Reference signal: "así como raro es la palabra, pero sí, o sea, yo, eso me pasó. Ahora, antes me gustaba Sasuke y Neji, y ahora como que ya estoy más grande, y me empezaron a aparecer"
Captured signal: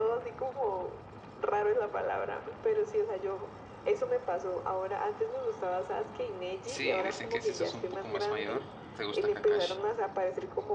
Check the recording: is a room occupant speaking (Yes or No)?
Yes